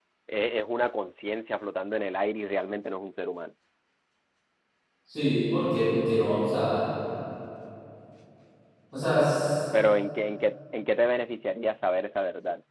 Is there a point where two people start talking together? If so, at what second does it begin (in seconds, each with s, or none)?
none